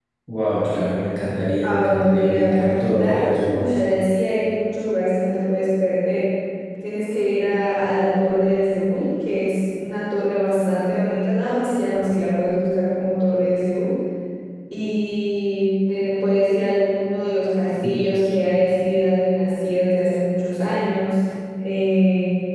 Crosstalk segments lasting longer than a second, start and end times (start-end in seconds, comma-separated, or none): 1.6-3.5